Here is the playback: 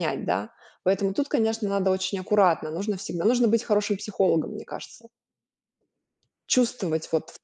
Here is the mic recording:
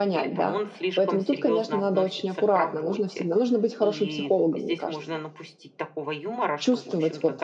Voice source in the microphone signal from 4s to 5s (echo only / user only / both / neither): both